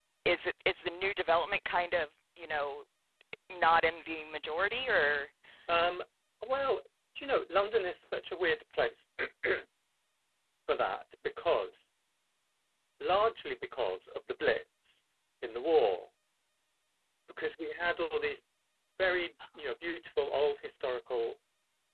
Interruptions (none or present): none